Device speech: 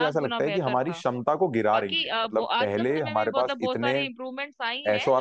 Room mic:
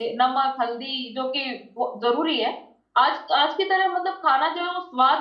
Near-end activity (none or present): present